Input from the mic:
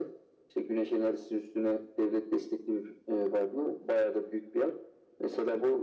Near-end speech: none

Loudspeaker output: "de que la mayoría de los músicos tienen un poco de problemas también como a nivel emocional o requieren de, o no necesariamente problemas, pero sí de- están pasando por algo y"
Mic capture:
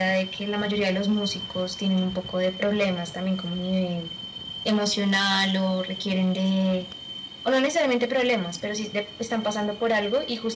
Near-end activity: none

